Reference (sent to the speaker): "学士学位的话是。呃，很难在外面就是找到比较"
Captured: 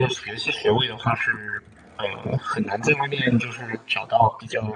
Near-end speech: none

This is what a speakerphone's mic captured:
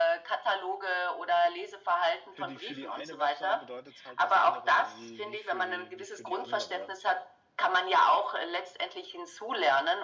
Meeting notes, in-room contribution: present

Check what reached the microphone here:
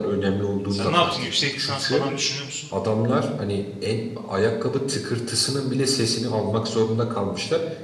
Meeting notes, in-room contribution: present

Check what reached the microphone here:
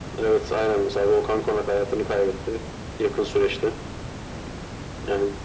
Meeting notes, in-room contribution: none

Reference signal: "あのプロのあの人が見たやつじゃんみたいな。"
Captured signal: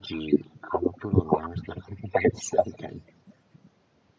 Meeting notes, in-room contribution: none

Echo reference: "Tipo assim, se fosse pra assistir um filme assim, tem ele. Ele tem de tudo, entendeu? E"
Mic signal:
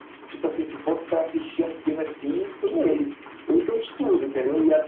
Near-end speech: none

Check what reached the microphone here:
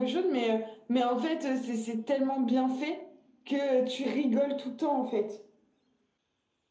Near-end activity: none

